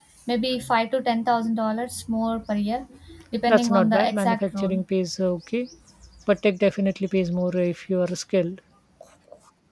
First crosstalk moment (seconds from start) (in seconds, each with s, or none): 3.5 s